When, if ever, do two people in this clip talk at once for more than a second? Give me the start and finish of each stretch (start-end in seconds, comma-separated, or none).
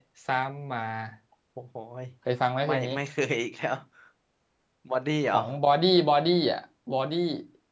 none